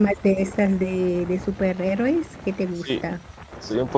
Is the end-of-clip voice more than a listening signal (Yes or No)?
Yes